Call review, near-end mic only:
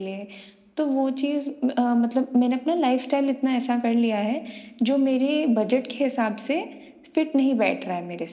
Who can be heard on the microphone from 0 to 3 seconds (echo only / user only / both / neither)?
echo only